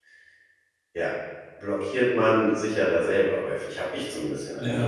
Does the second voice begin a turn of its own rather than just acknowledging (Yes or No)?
Yes